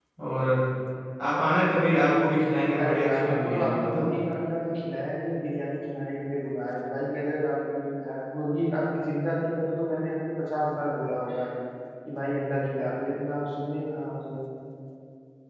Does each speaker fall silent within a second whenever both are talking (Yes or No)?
No